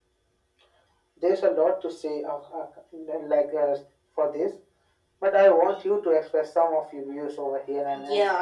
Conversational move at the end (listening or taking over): taking over